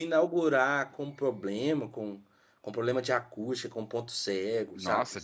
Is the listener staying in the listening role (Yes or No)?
No